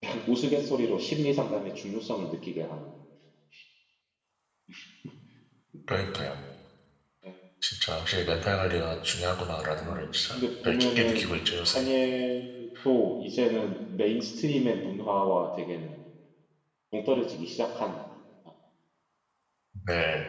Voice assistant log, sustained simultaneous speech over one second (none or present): present